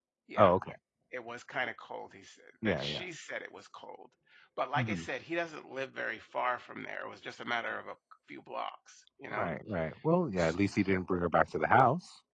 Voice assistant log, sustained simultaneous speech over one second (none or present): none